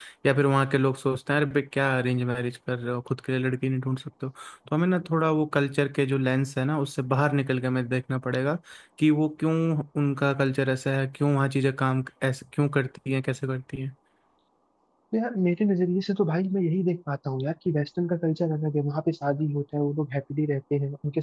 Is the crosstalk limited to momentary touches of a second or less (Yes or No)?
Yes